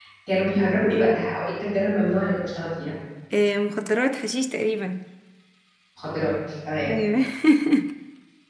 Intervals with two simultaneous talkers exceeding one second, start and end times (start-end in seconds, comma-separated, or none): none